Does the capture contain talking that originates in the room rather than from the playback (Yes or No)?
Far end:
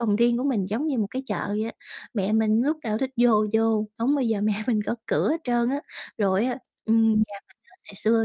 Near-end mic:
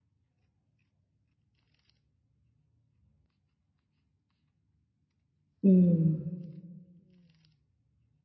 Yes